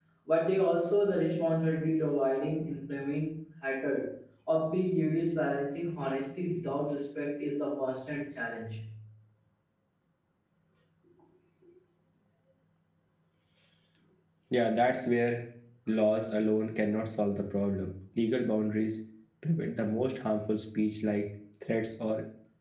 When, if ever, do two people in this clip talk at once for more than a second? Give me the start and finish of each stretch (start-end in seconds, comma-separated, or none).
none